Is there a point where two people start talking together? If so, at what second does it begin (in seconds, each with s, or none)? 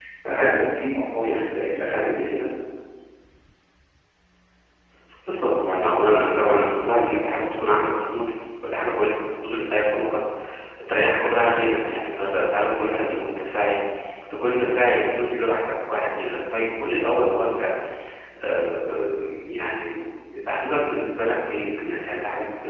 none